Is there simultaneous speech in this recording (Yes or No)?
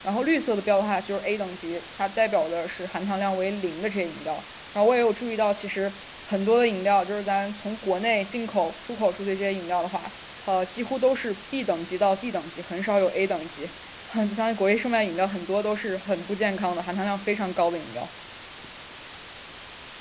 No